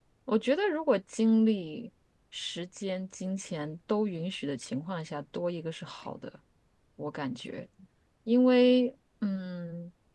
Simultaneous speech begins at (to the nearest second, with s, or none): none